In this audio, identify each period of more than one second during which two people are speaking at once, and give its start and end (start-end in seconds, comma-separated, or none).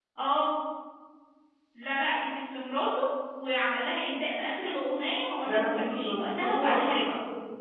5.5-7.0